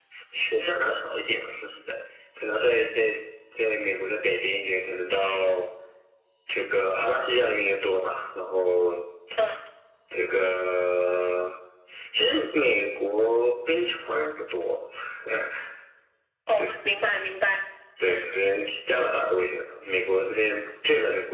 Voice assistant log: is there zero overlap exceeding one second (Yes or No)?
Yes